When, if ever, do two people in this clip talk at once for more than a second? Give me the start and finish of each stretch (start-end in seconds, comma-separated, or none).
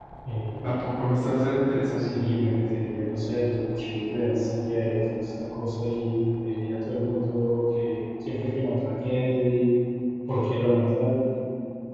none